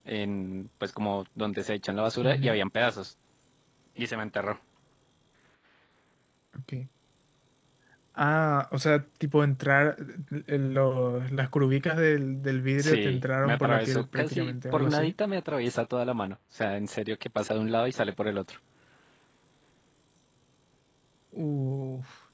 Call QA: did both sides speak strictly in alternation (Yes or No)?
No